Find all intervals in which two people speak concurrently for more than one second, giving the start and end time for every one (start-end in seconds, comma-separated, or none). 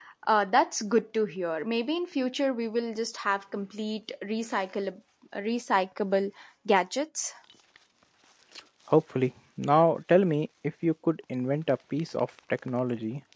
none